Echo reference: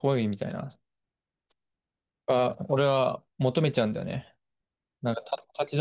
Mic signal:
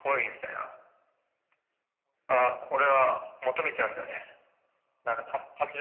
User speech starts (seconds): none

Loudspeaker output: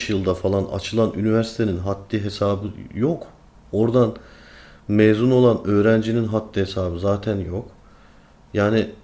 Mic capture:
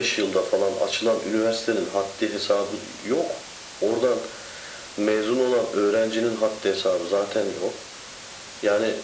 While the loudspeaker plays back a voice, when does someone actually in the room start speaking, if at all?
none

